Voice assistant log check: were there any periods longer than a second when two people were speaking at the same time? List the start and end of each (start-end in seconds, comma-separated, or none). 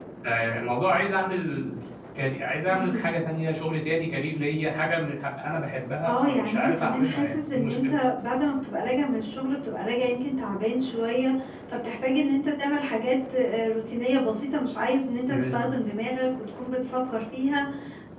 6.0-7.9